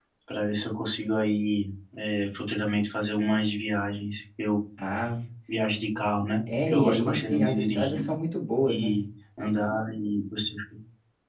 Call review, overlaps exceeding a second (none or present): present